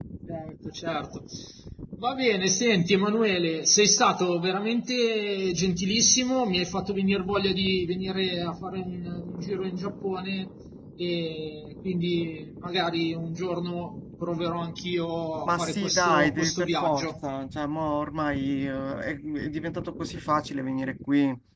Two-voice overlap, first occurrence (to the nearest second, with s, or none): 15 s